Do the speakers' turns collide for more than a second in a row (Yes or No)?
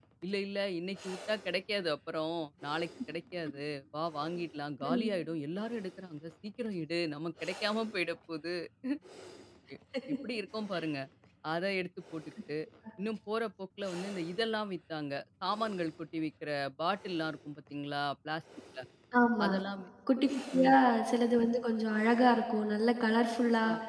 No